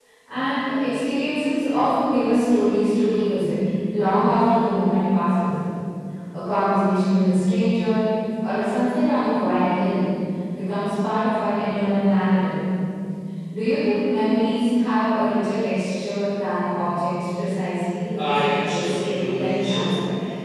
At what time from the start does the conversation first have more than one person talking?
18.2 s

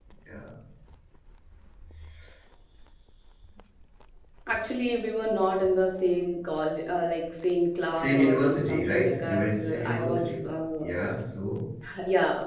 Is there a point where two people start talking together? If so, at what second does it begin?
8.0 s

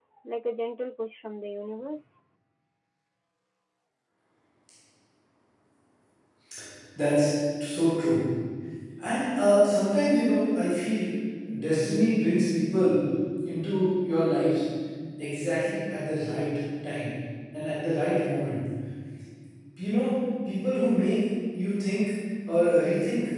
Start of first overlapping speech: none

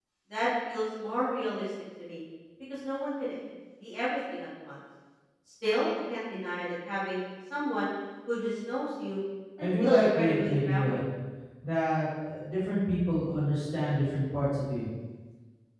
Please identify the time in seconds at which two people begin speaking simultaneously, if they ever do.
9.6 s

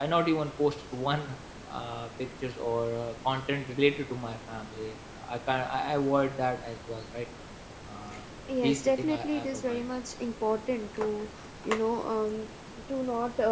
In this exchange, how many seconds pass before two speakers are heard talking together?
8.6 s

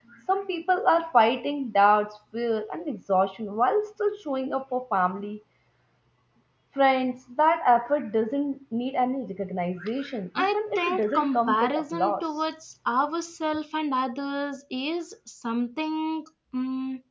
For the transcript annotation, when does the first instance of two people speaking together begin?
10.4 s

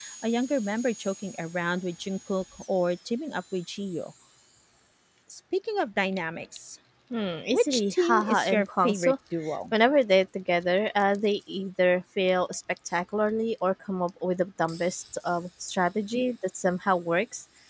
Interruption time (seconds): 7.5 s

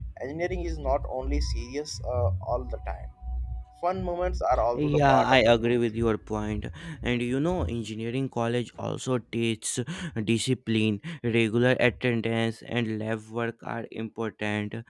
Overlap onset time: 4.8 s

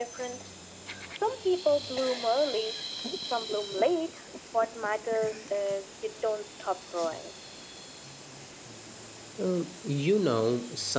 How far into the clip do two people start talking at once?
none

